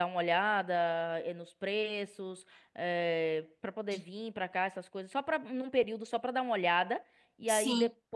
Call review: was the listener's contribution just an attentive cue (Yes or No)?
Yes